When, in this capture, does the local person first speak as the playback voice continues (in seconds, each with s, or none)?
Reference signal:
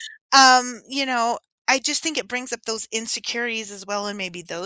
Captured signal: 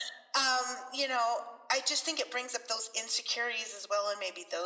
none